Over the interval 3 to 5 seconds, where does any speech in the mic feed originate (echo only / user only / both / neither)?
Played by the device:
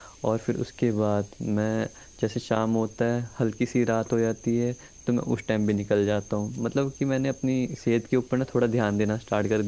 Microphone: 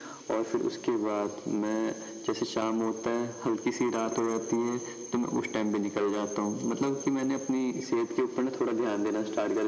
echo only